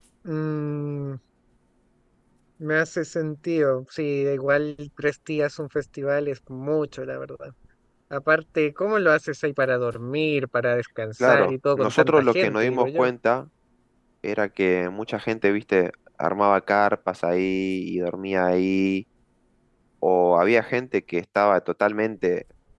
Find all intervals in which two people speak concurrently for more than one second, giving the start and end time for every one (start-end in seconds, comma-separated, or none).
11.3-13.1